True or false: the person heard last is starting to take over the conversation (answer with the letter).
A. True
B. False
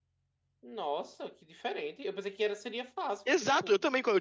A